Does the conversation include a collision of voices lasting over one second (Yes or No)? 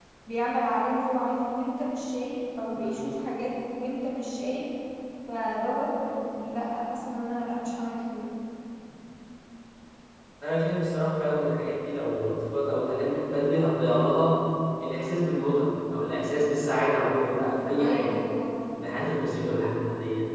No